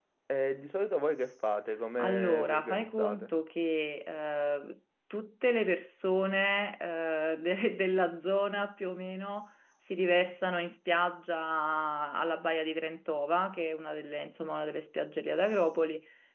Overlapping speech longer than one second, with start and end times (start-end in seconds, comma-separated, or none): 2.0-3.3